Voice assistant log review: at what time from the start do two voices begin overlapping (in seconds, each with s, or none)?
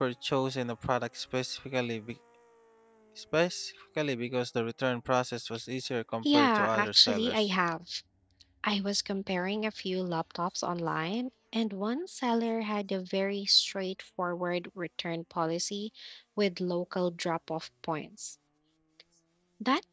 6.2 s